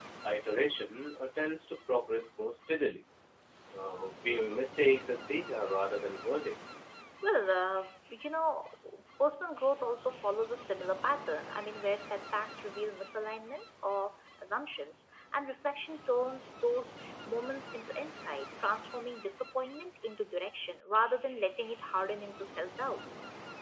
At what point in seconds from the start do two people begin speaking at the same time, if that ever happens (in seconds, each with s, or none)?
none